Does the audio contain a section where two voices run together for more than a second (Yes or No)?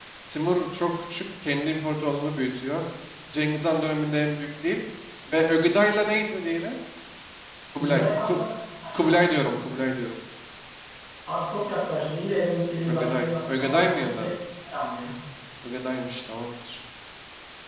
Yes